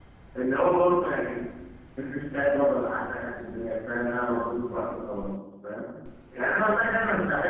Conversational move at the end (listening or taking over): listening